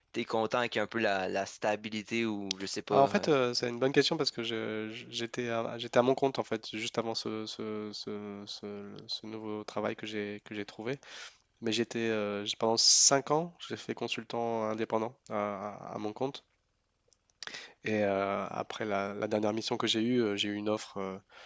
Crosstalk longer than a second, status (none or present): none